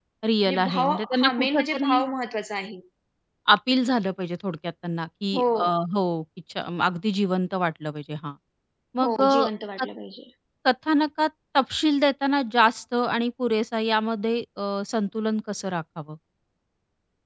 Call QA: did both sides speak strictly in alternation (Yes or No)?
No